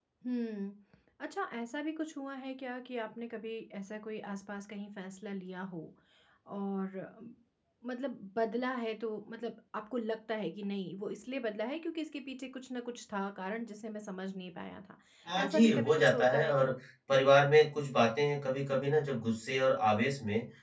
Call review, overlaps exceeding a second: present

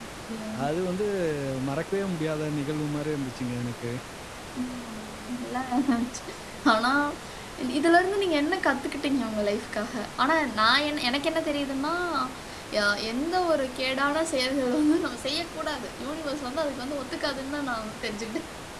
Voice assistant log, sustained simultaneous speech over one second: none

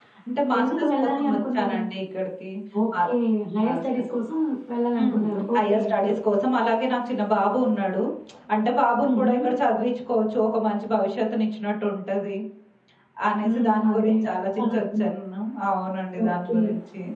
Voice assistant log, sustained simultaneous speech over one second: present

